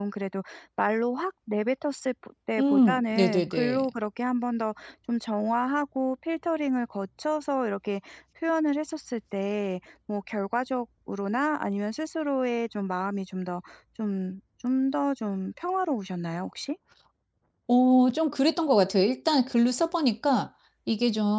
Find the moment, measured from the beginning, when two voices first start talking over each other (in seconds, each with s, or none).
2.6 s